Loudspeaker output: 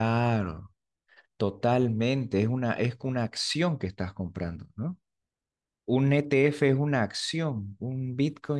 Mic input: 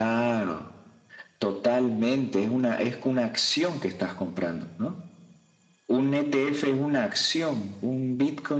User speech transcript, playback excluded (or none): none